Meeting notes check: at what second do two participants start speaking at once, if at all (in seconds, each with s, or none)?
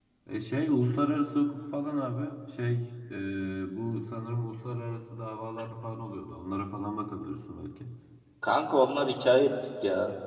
none